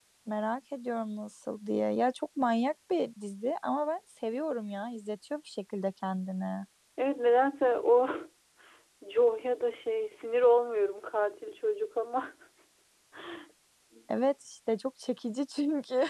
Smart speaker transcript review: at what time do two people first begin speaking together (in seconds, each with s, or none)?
none